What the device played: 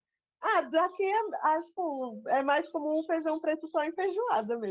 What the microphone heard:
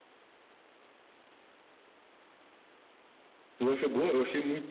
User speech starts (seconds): 3.6 s

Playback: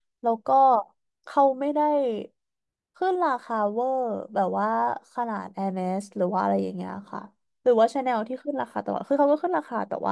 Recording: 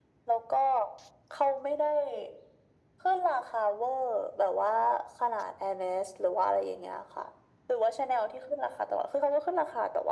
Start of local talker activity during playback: none

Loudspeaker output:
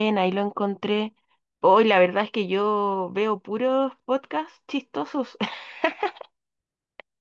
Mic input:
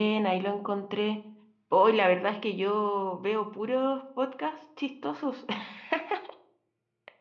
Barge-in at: none

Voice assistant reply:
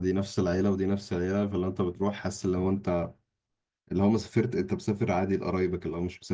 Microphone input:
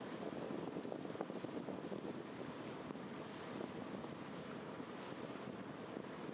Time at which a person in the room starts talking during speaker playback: none

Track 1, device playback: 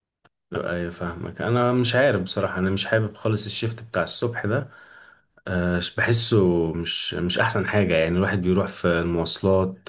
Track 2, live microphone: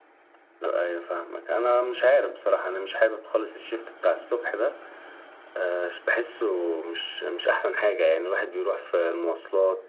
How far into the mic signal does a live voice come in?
none

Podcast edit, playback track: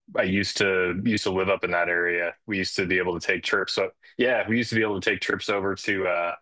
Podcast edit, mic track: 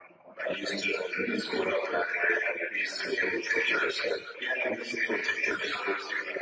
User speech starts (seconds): none

